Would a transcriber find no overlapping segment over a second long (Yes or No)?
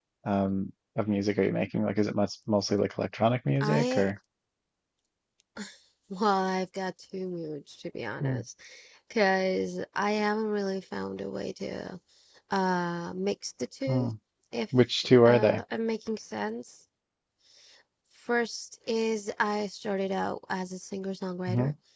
Yes